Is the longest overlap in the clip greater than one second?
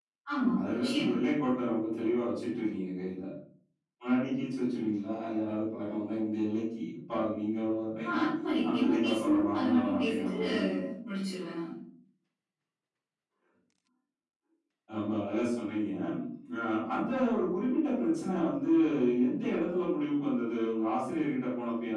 Yes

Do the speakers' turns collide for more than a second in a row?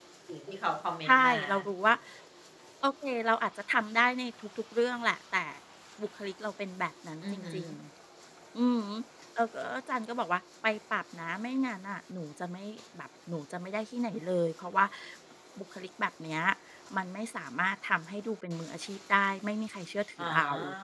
No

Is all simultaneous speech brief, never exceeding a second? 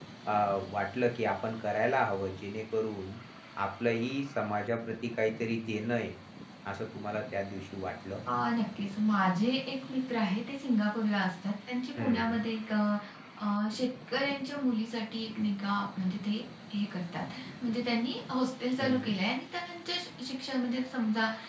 Yes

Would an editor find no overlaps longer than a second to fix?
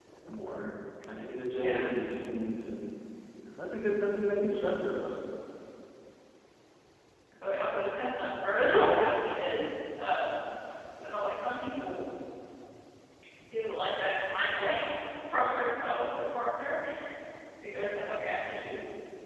Yes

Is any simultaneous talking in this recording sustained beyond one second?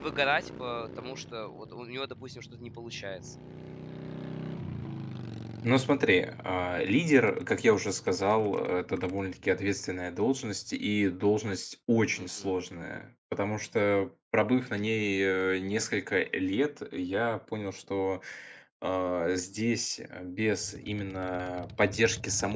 No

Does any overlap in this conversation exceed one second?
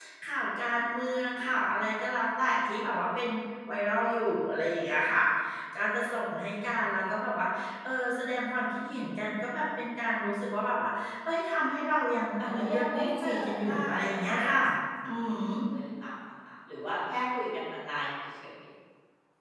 Yes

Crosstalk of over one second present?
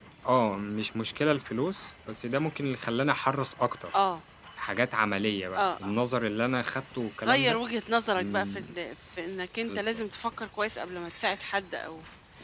No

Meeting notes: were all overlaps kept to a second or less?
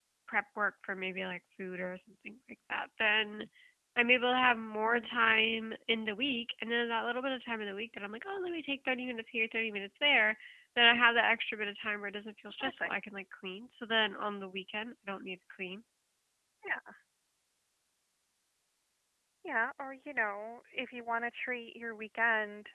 Yes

